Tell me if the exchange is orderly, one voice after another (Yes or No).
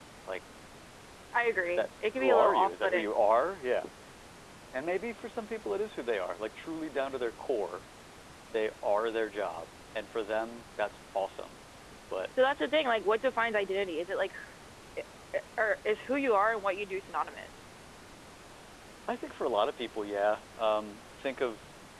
No